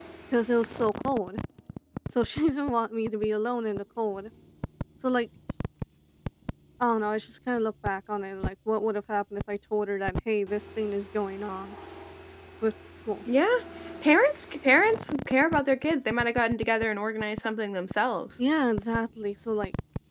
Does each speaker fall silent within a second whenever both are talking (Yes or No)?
Yes